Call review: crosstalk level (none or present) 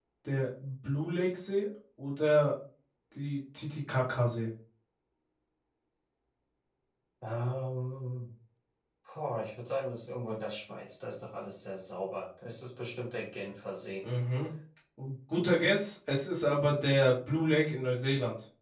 none